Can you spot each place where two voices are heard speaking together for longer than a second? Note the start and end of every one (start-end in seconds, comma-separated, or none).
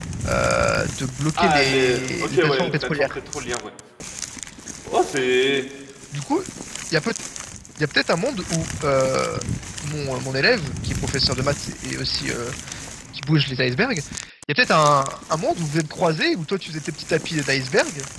1.4-3.2